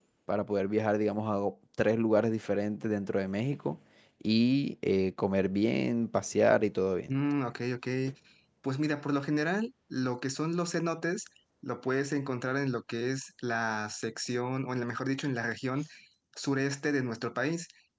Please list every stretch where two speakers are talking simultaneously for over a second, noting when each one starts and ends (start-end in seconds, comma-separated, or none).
none